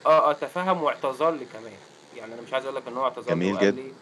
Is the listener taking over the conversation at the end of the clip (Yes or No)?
No